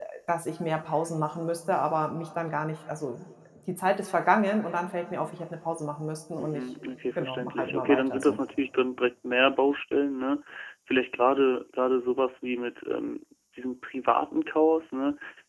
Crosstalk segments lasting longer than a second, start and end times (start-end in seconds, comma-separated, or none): 7.2-8.4